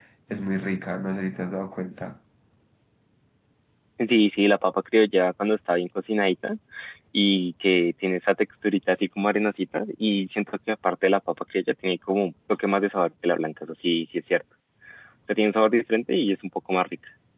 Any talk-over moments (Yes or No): No